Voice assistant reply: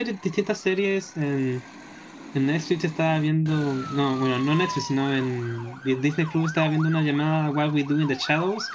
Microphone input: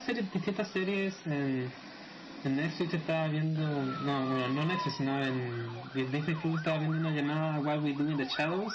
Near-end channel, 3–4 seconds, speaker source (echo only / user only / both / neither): echo only